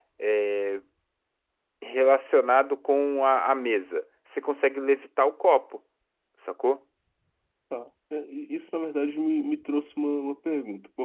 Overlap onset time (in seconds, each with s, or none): none